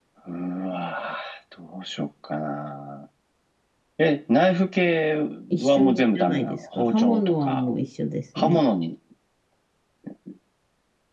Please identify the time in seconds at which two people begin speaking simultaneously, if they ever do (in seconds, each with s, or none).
5.6 s